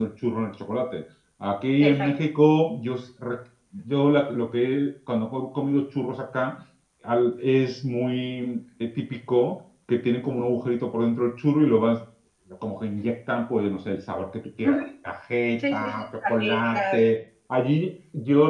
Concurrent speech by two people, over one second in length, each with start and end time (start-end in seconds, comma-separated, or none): 15.7-17.0